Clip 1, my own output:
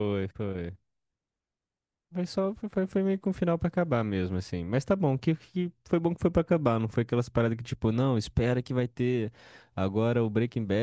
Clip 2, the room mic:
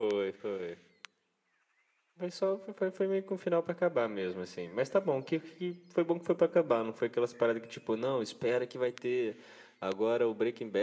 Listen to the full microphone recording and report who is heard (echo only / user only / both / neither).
echo only